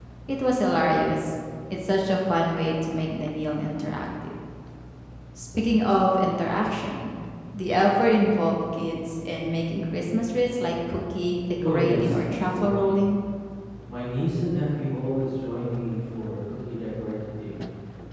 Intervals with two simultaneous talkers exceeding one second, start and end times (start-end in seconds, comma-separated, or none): 11.6-12.9